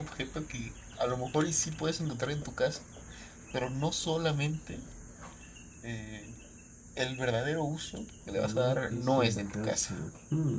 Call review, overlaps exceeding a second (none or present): present